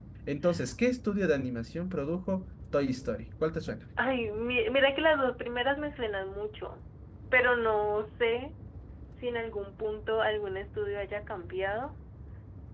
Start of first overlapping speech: none

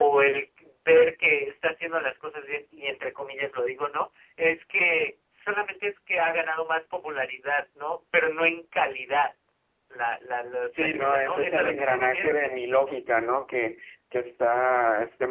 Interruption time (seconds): 10.7 s

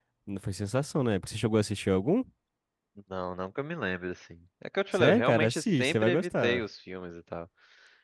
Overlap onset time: 4.9 s

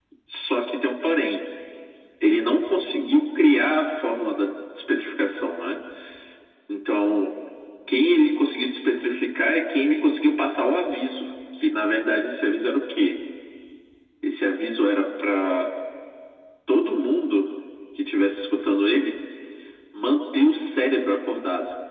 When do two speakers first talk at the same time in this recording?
none

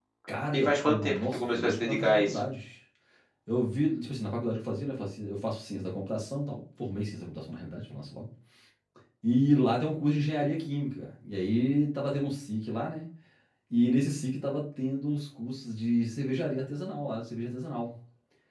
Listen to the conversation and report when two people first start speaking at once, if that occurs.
0.6 s

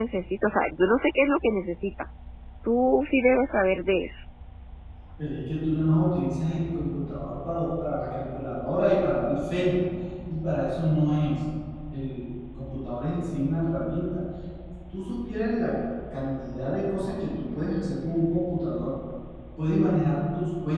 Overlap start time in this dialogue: none

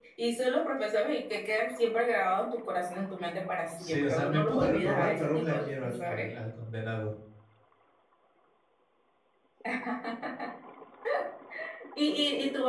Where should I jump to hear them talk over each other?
3.8 s

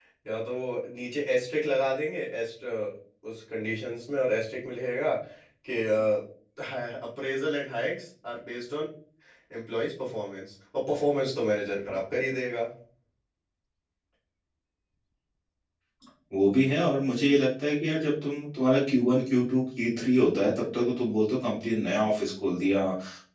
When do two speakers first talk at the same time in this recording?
none

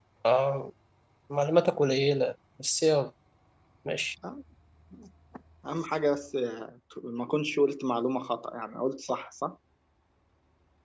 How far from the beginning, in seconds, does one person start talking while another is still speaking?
none

